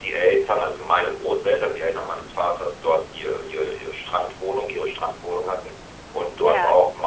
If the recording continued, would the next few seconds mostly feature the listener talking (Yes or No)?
No